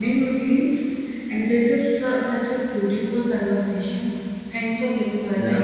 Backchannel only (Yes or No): No